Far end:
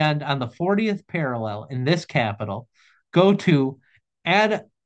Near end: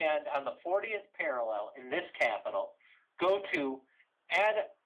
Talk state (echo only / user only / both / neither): echo only